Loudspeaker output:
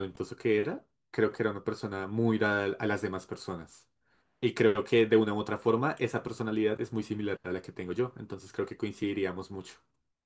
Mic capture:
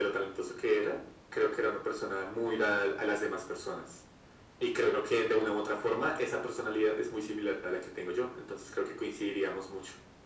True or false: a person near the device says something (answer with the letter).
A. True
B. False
B